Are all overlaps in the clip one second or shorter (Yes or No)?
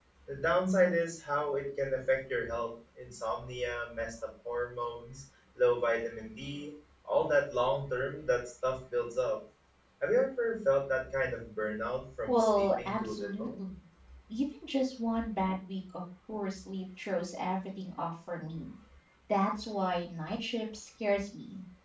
No